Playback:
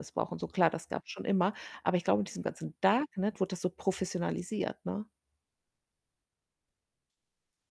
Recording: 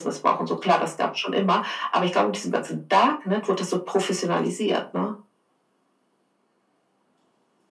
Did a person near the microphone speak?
No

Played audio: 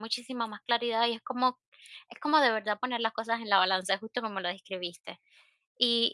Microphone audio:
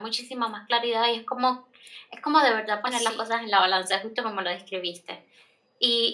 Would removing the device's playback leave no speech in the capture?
No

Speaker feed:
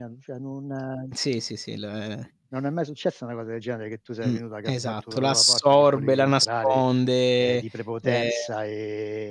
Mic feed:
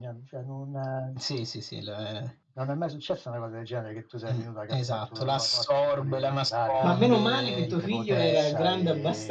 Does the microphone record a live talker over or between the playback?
Yes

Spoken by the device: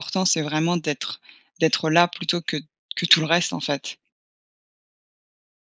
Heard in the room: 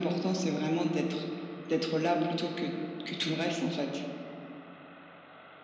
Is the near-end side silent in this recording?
Yes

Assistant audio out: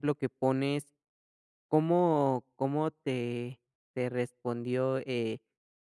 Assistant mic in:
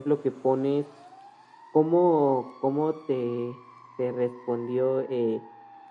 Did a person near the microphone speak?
No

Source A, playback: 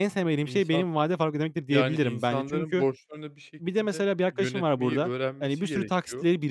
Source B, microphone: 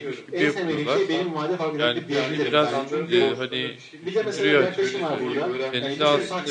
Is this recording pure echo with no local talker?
No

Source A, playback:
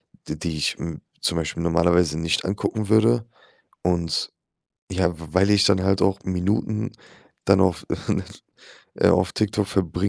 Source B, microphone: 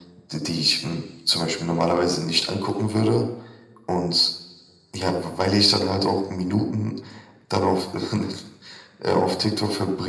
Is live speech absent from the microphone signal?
Yes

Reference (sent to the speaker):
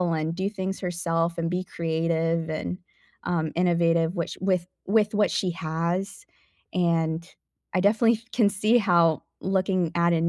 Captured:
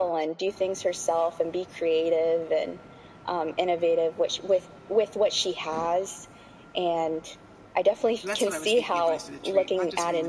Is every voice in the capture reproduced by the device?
No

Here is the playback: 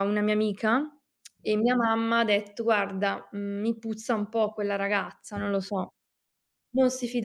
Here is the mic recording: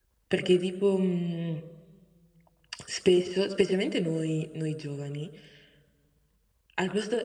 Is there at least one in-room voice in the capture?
Yes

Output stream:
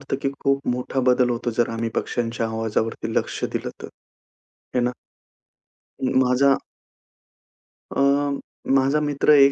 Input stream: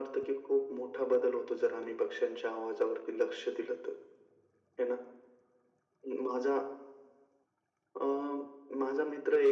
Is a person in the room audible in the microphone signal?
No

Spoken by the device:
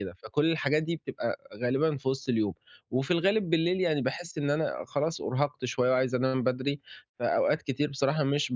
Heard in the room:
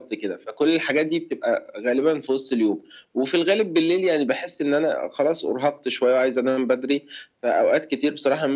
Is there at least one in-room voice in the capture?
No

